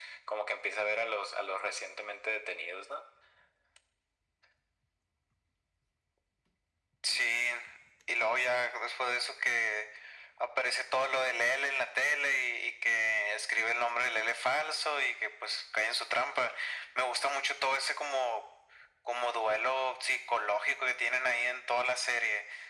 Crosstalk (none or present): none